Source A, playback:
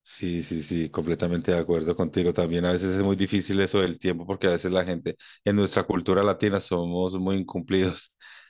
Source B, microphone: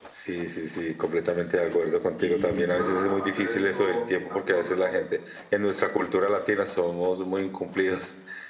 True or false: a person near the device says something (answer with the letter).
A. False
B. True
B